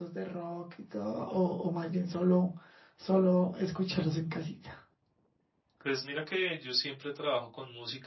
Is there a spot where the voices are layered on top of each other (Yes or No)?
No